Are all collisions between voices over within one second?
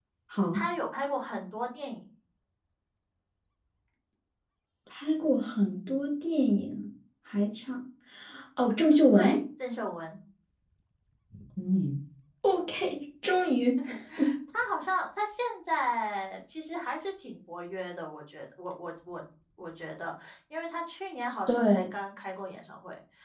Yes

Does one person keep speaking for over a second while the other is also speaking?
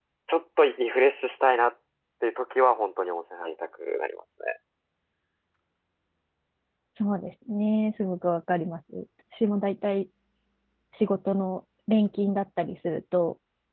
No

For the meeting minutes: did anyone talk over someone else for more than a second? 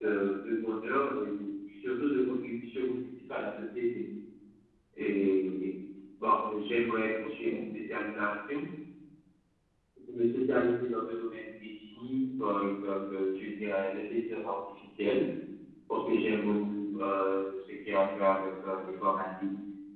No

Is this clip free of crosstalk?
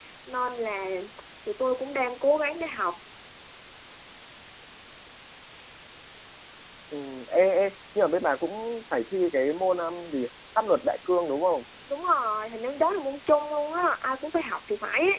Yes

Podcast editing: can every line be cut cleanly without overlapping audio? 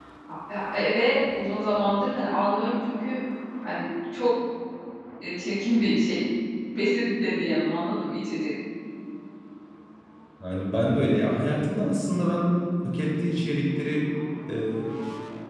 Yes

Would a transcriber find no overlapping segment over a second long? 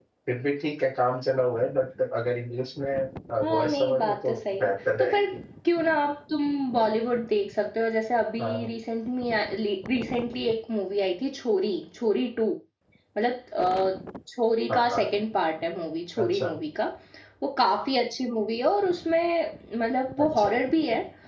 No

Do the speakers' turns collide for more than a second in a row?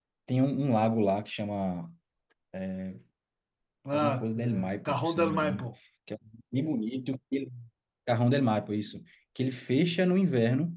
Yes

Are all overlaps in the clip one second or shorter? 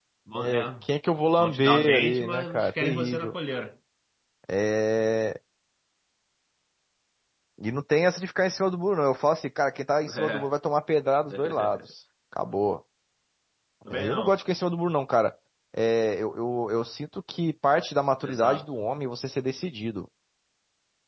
No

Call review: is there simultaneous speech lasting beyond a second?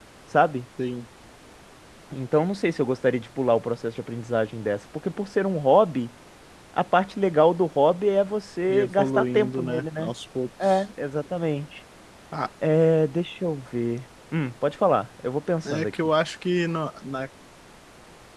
Yes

